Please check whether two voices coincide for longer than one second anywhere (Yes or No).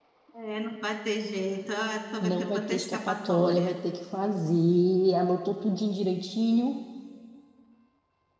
Yes